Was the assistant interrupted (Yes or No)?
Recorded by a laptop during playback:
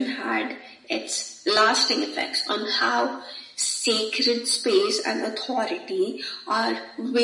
No